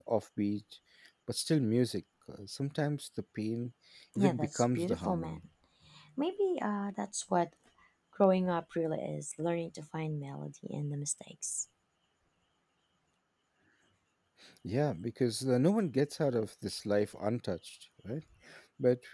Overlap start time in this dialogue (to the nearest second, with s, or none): 4 s